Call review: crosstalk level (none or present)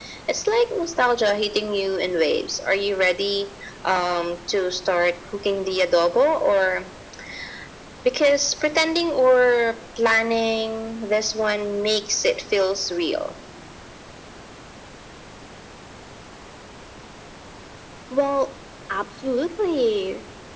none